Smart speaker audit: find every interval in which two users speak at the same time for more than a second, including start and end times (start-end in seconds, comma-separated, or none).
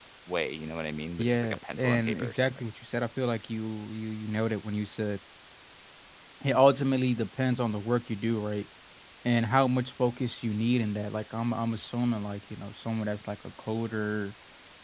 1.2-2.7